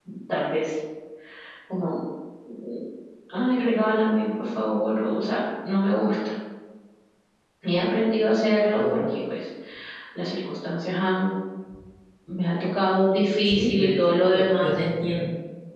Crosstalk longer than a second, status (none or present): present